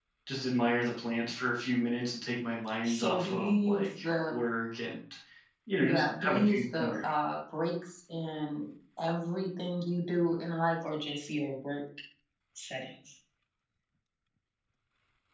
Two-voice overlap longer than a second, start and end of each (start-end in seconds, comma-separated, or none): 2.8-4.4, 5.9-7.1